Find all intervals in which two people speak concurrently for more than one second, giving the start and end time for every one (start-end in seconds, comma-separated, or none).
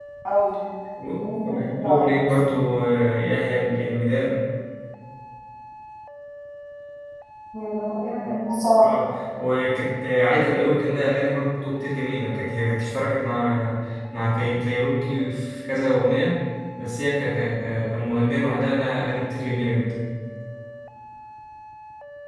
1.2-2.6